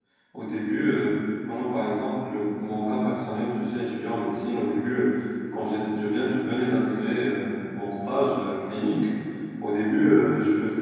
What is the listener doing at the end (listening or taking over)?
listening